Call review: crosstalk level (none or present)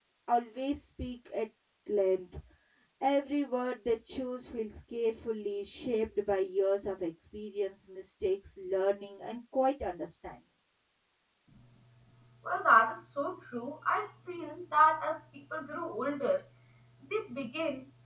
none